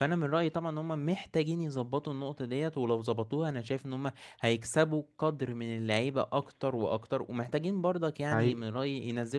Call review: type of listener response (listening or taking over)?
listening